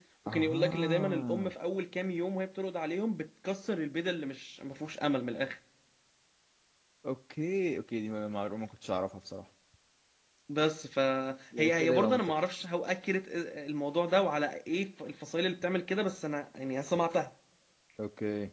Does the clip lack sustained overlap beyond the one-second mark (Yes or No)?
No